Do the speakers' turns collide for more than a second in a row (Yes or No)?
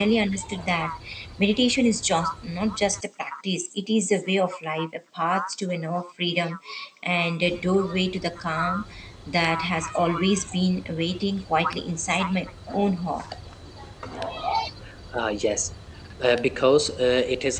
No